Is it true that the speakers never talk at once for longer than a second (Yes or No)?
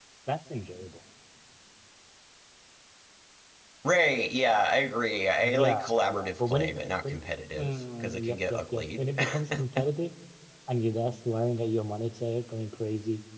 No